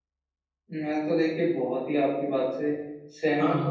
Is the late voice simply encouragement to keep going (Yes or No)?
Yes